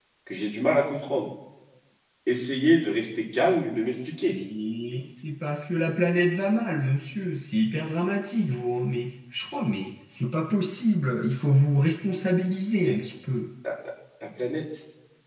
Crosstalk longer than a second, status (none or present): none